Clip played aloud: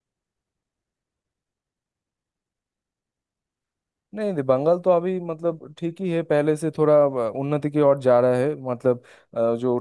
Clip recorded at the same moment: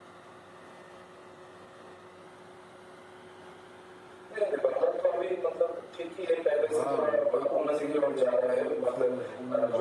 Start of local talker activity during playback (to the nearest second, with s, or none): 7 s